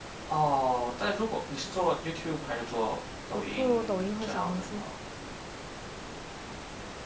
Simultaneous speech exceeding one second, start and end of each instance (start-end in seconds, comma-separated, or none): 3.3-4.8